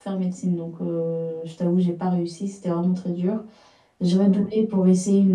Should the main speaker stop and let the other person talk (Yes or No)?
No